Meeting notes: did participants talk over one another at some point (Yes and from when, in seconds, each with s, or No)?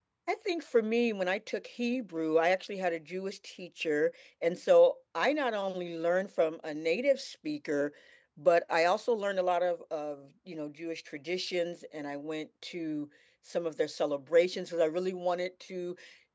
No